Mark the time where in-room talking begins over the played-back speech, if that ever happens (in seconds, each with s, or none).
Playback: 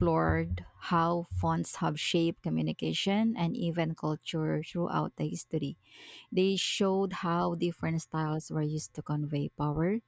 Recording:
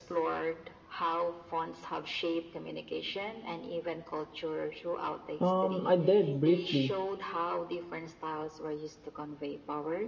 5.4 s